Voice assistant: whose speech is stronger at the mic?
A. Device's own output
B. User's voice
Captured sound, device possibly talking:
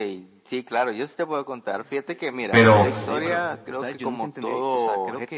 B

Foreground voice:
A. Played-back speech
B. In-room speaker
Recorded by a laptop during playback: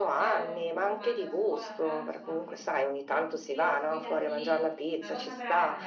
A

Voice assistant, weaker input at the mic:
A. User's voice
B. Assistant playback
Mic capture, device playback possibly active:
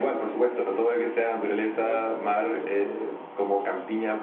A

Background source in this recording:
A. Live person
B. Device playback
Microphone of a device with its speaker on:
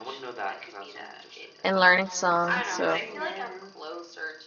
B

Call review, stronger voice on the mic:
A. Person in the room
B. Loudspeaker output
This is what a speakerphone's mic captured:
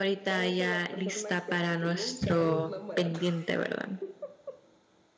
A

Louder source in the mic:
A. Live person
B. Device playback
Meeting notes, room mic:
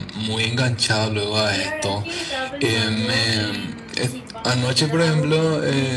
B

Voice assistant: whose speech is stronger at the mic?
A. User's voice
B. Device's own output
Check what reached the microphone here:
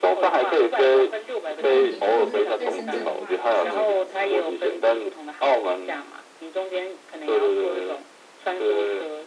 B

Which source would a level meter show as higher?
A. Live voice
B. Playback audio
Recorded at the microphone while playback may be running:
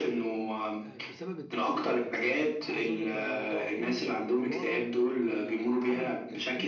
B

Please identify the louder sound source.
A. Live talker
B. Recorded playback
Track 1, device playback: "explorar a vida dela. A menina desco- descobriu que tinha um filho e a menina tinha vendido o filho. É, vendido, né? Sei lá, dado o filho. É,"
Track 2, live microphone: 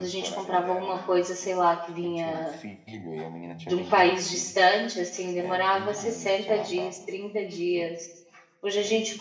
A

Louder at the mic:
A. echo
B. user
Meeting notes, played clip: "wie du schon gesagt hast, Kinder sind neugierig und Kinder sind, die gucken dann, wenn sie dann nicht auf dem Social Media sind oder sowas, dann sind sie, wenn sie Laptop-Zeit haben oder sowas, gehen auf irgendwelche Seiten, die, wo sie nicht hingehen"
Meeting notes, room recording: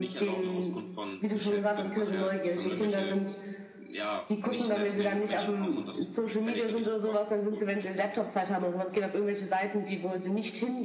A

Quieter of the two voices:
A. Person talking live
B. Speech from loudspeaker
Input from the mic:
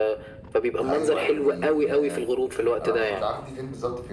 A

